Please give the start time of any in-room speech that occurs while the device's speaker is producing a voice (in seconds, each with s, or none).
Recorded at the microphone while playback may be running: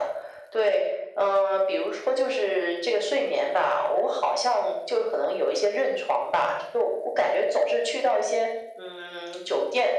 none